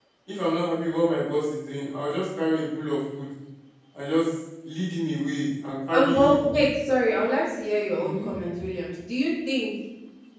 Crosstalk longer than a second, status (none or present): none